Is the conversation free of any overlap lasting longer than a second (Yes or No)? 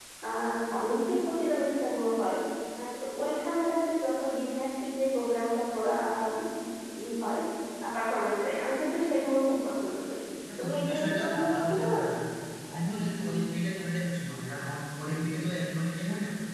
No